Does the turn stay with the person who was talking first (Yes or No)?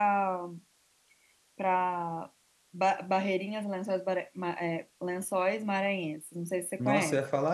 No